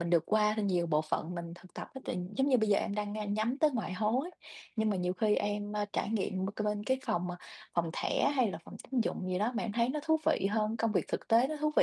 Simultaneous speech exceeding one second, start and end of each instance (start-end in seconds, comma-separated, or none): none